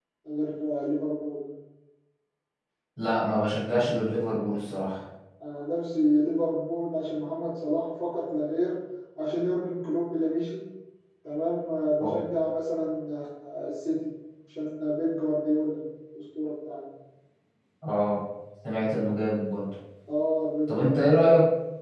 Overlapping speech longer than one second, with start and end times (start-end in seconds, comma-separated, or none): none